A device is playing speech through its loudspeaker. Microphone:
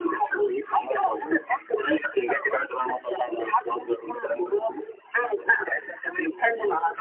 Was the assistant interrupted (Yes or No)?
No